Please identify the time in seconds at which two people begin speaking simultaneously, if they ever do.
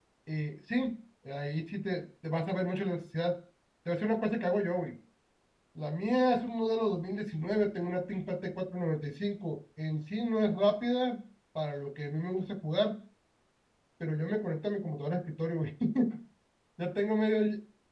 none

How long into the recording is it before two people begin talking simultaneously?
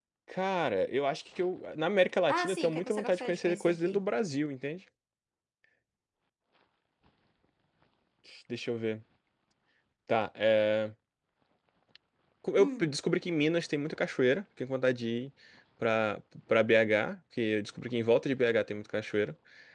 2 s

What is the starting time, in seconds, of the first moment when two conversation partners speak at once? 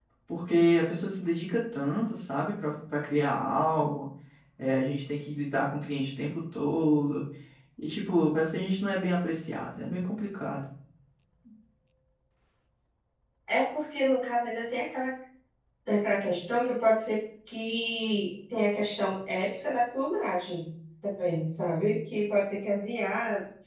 none

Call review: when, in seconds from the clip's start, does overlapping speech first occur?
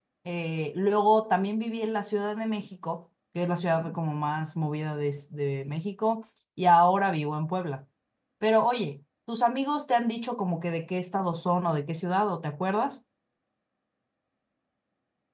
none

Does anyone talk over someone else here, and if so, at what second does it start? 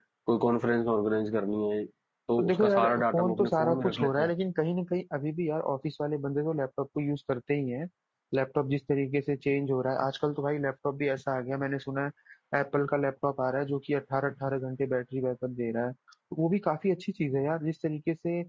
2 s

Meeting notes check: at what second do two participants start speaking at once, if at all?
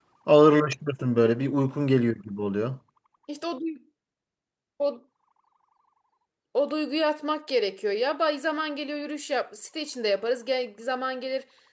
none

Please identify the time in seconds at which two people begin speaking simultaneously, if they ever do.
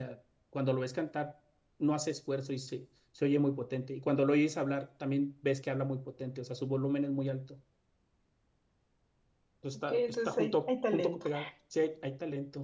10 s

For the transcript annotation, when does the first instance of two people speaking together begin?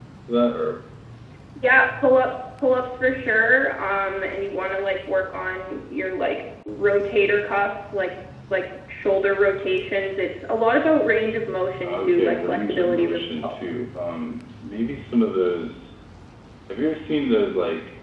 12 s

